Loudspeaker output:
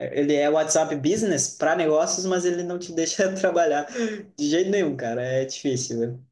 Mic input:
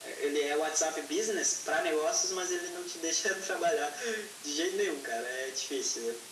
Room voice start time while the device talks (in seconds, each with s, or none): none